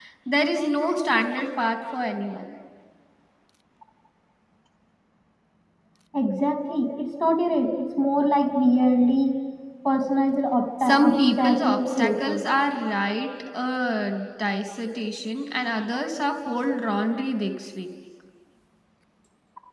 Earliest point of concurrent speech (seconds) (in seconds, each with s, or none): 10.8 s